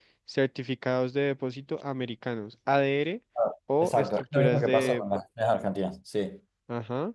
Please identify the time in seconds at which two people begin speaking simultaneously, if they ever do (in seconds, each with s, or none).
3.8 s